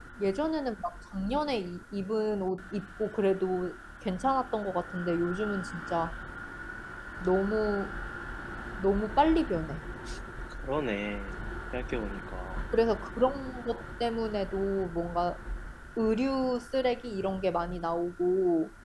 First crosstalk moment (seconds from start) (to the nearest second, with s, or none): none